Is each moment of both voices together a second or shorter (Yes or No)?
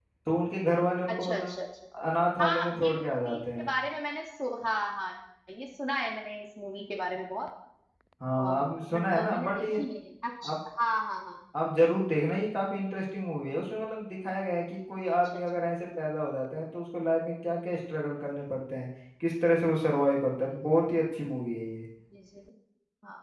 No